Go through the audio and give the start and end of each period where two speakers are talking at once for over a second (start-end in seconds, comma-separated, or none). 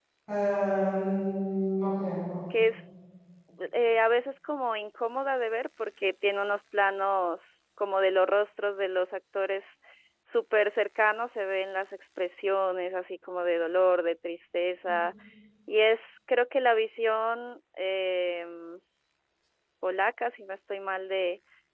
none